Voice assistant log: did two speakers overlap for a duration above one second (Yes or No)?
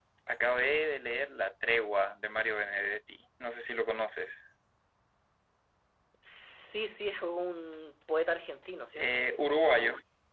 No